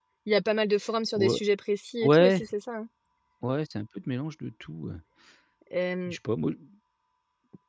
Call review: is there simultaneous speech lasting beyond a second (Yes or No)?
No